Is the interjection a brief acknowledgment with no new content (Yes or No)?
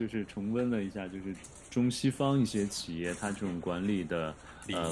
Yes